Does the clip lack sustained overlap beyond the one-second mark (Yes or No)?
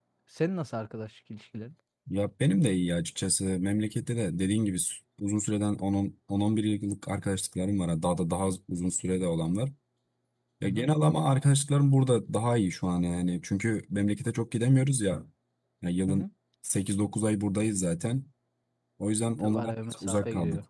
No